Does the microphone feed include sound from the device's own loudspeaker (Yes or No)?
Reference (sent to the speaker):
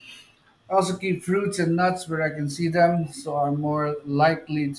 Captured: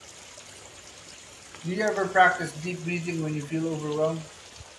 No